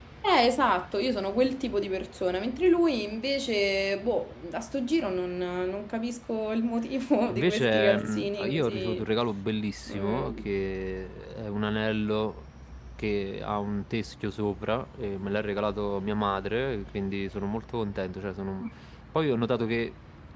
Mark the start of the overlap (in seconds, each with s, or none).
7.3 s